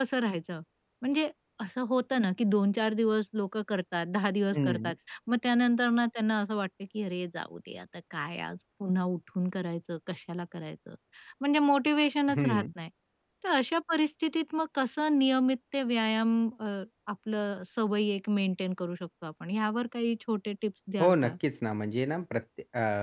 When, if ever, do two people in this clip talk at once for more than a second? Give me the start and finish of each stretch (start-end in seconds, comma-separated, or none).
none